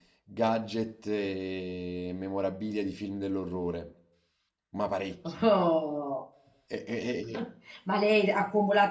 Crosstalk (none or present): none